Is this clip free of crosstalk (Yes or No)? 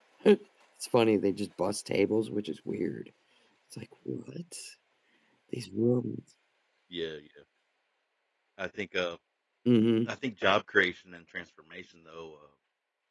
Yes